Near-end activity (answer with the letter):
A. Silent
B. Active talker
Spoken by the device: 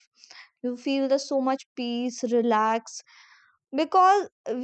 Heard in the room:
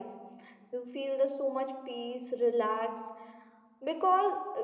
A